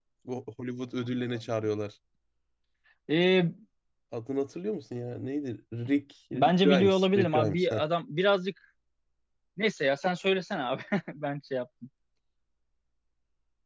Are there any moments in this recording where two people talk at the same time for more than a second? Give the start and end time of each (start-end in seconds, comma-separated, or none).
6.3-7.8